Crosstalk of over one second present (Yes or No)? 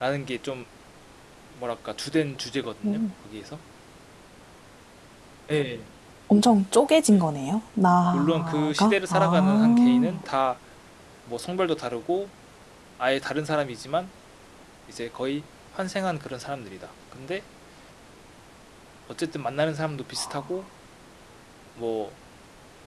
Yes